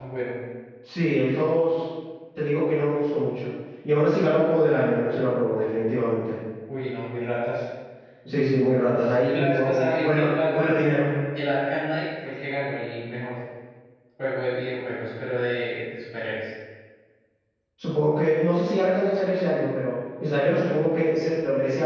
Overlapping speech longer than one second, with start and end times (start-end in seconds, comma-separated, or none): 9.3-10.8